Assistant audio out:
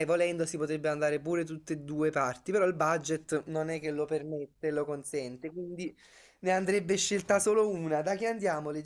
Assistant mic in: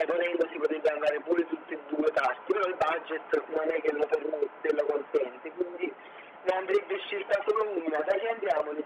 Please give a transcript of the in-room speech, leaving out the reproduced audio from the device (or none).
none